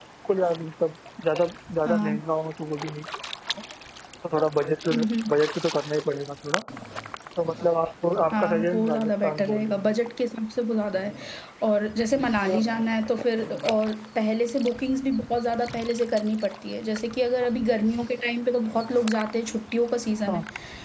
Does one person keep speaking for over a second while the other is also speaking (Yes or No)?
Yes